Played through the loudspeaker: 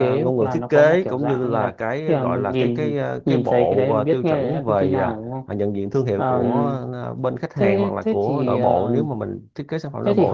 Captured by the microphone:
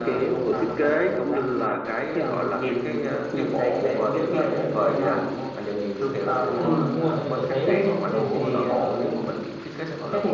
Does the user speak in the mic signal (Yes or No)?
Yes